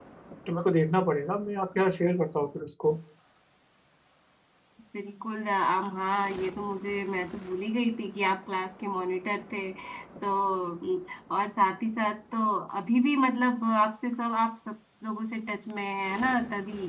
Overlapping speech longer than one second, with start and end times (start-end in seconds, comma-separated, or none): none